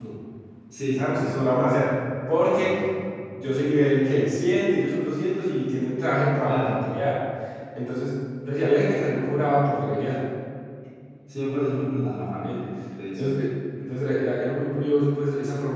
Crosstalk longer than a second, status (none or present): none